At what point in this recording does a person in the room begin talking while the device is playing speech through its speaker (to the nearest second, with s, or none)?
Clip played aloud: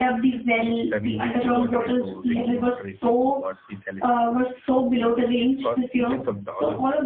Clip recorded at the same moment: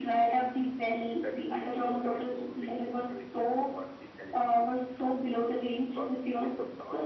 none